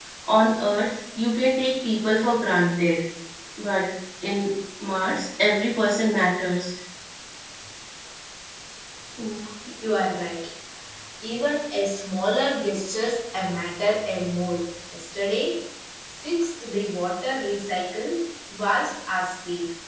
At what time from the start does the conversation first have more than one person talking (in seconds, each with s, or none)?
none